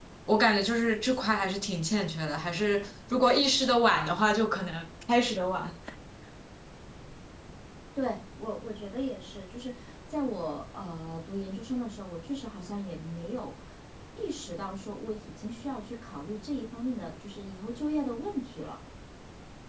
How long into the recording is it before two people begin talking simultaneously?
none

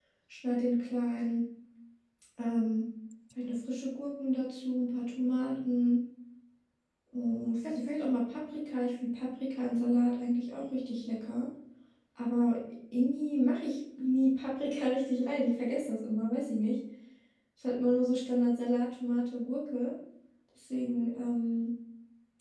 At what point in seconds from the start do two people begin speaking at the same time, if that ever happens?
none

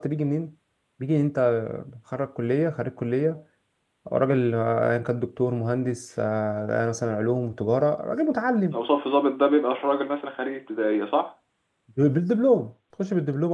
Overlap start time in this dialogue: none

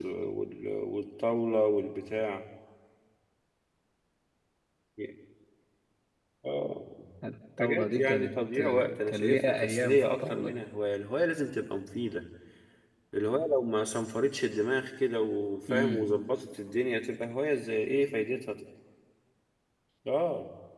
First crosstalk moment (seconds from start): 8 s

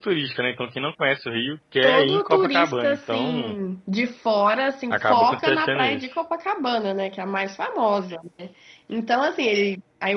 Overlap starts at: 2 s

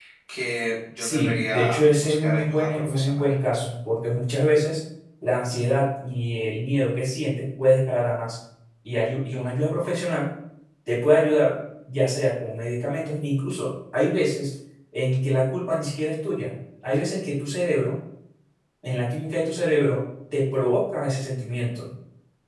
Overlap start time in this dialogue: 1 s

